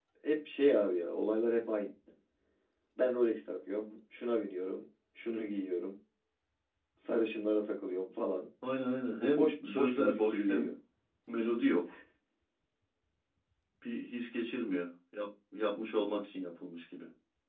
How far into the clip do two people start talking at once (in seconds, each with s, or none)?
9.1 s